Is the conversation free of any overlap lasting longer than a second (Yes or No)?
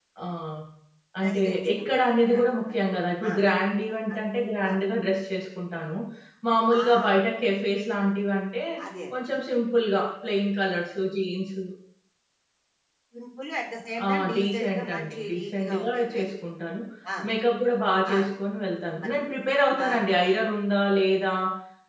No